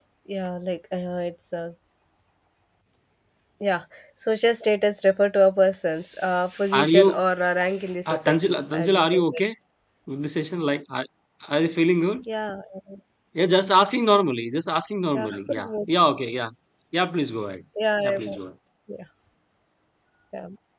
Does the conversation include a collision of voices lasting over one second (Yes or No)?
Yes